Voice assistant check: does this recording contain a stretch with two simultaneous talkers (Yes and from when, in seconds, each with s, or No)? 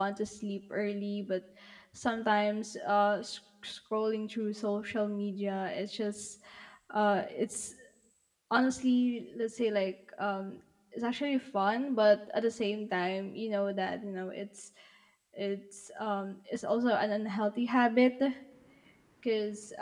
No